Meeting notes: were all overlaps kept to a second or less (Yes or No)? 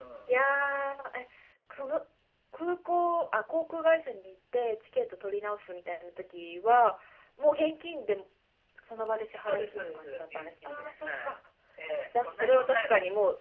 No